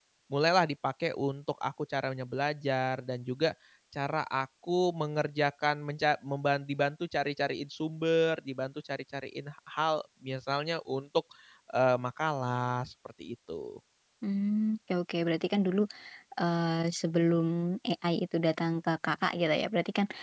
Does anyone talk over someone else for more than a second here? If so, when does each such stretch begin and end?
none

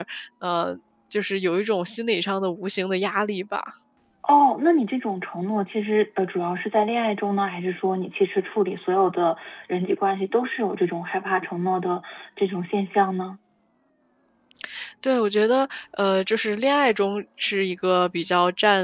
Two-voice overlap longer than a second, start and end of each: none

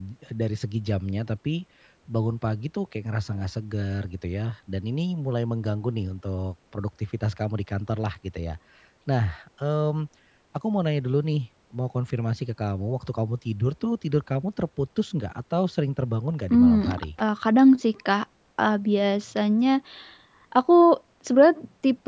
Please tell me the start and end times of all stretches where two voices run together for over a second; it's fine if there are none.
none

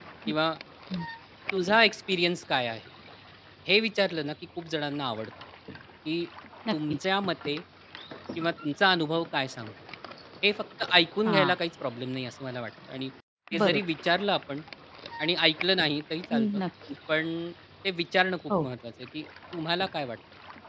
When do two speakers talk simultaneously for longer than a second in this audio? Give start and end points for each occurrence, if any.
none

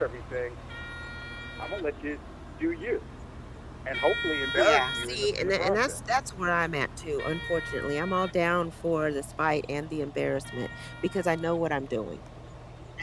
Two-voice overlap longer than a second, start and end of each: 4.6-6.0

